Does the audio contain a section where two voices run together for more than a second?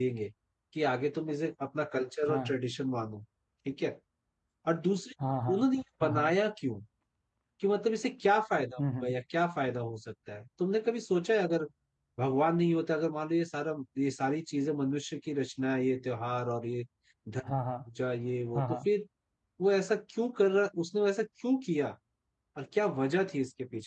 No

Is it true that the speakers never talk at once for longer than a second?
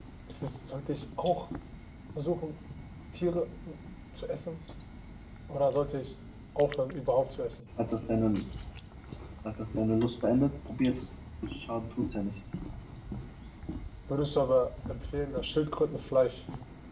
Yes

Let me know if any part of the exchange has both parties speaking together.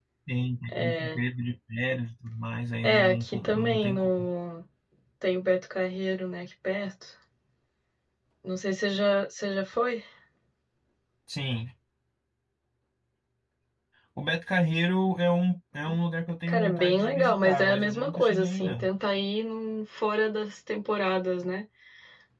Yes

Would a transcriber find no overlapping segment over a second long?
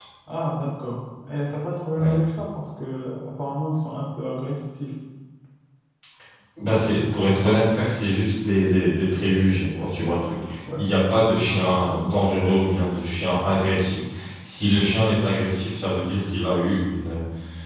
Yes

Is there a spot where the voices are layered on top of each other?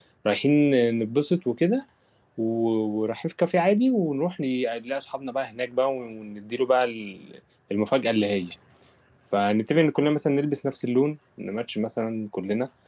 No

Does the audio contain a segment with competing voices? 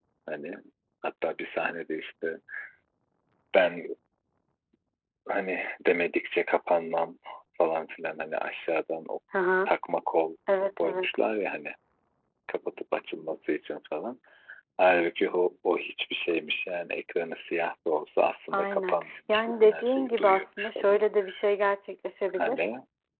Yes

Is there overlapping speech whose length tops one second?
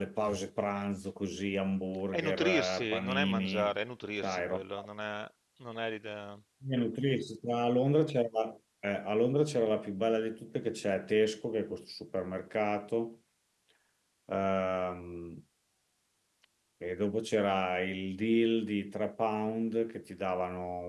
Yes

